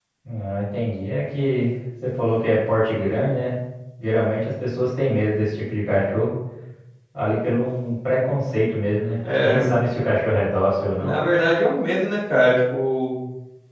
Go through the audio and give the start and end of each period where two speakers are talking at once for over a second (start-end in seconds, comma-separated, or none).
none